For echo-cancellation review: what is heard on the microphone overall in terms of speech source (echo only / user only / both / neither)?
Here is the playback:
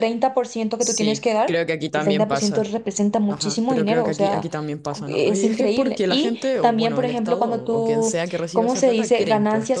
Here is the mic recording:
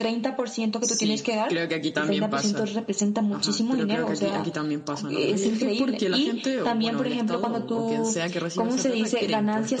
both